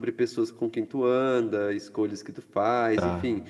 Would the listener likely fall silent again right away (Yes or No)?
Yes